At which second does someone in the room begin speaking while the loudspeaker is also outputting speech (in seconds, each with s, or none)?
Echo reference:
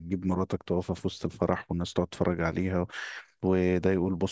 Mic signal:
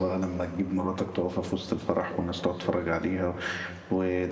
none